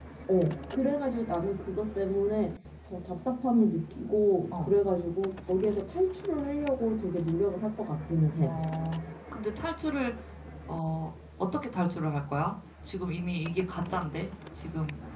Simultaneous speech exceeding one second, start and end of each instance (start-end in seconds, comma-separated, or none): none